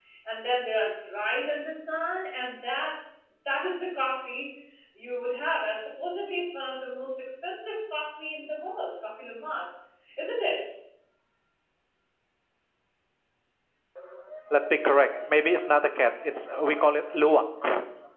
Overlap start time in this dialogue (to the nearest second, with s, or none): none